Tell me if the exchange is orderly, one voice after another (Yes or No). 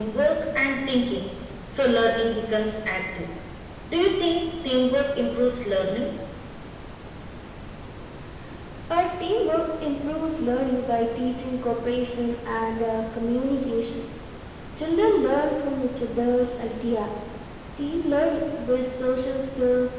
Yes